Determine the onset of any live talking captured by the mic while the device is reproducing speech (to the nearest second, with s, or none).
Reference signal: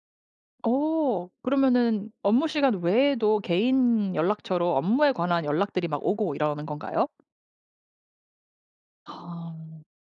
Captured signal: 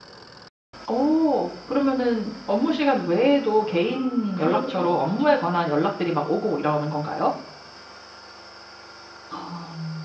4 s